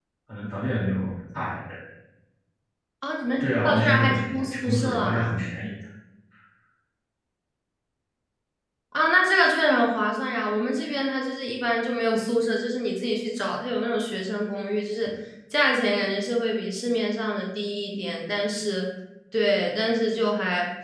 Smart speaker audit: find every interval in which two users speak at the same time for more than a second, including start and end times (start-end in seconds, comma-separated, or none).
3.4-5.4